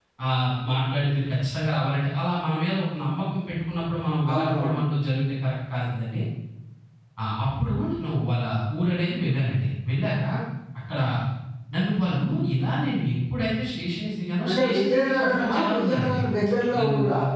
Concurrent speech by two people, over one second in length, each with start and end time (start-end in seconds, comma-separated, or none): 14.5-16.2